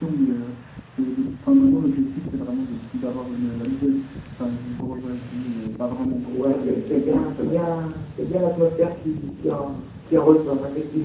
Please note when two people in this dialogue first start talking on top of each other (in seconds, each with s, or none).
6.3 s